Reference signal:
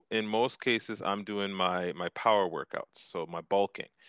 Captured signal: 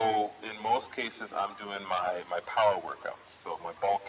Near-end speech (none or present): none